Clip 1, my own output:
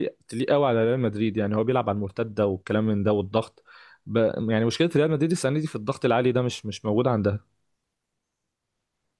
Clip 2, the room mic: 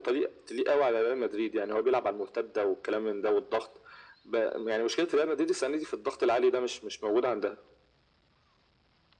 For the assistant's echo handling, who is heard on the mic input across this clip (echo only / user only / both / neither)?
echo only